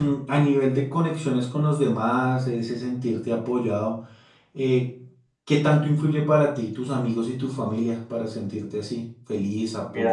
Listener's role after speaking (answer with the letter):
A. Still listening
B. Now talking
B